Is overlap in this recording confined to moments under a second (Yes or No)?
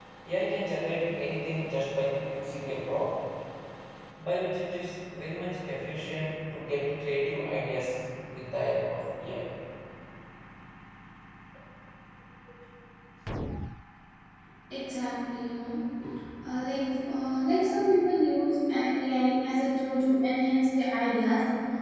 Yes